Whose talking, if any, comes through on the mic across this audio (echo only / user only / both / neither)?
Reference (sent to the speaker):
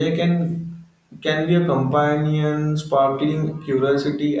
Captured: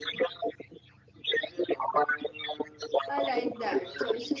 both